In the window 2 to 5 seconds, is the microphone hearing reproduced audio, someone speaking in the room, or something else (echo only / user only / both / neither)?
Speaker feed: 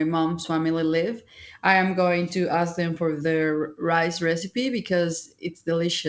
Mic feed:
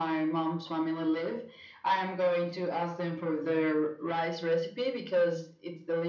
echo only